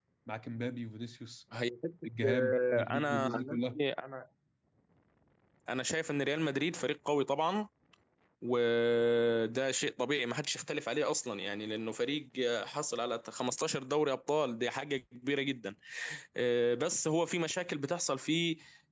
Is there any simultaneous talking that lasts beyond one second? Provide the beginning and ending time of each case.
2.2-3.8

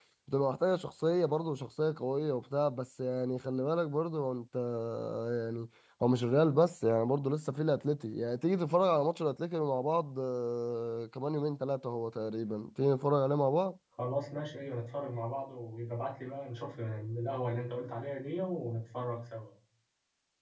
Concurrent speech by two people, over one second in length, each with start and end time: none

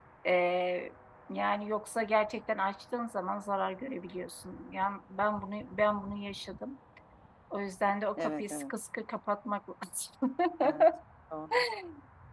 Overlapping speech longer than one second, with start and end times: none

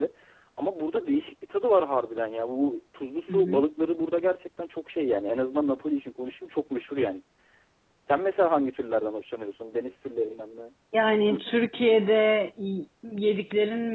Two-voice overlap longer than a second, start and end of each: none

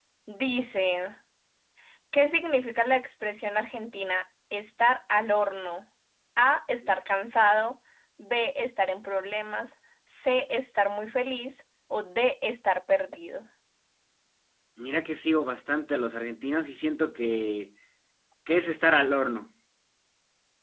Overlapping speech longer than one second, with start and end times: none

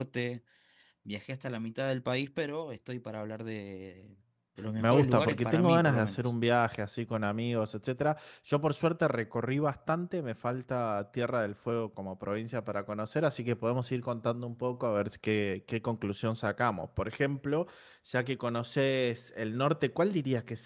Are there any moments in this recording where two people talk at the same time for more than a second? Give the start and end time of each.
4.8-6.3

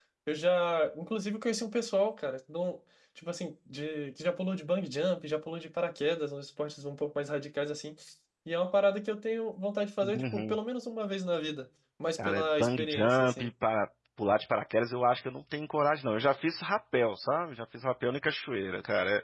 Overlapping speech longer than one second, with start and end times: 12.2-13.5

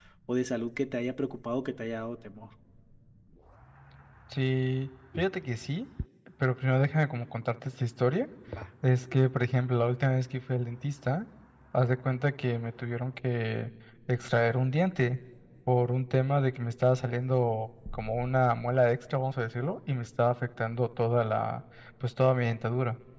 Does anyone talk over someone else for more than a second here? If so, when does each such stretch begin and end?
none

